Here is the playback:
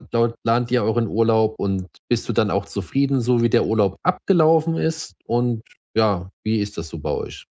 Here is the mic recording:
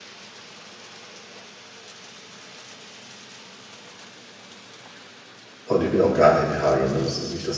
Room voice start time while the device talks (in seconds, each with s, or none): 5.6 s